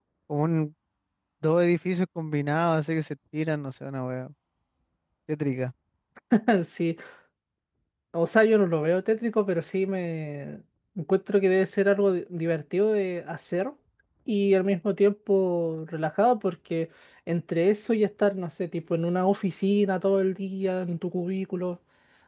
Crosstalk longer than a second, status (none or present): none